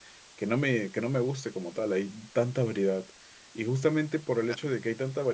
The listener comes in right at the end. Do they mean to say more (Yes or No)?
No